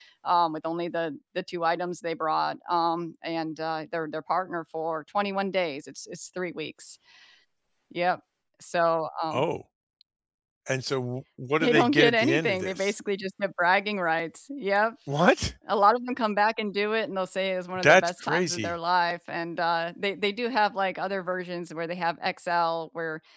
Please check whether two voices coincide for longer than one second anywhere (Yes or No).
Yes